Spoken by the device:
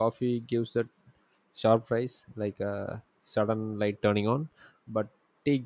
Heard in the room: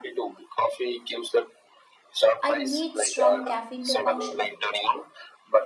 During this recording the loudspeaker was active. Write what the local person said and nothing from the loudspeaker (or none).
I need strong caffeine to function,